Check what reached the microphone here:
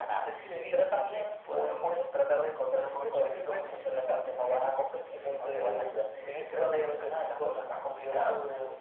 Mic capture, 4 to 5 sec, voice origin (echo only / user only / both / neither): echo only